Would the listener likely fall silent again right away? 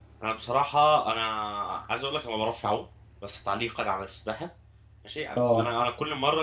Yes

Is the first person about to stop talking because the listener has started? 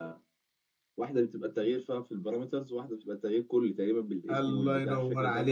Yes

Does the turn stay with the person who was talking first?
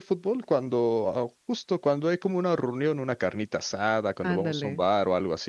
Yes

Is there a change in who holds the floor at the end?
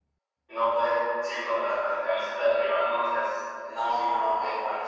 Yes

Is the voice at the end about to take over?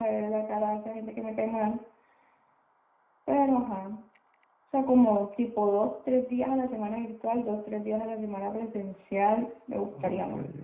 Yes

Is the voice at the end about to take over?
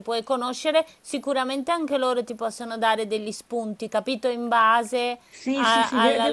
Yes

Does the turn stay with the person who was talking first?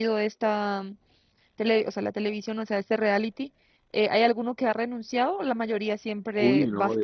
No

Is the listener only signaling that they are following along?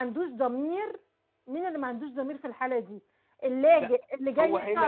No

